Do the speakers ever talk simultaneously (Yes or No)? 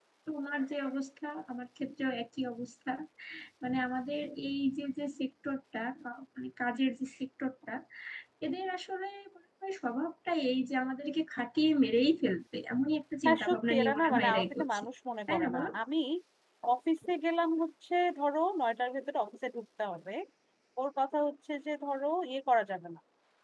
Yes